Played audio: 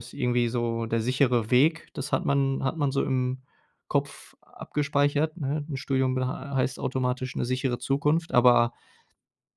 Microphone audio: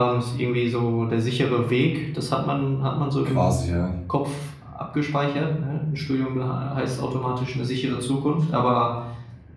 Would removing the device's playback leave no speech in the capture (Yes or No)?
No